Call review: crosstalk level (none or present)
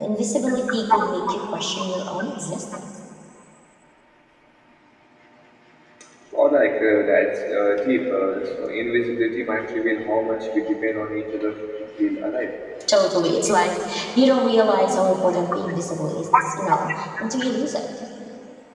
none